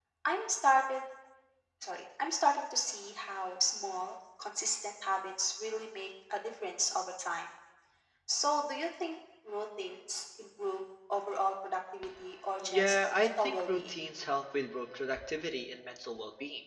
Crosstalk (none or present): present